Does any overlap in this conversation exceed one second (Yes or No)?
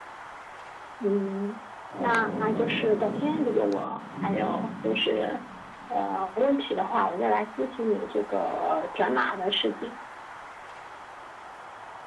Yes